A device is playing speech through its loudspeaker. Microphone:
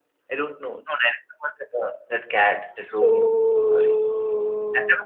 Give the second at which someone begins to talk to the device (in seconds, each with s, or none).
2.7 s